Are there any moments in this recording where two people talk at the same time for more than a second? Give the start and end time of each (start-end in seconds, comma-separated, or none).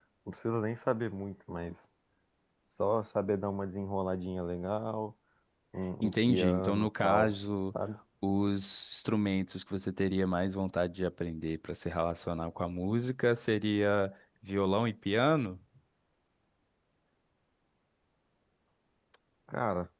6.0-7.3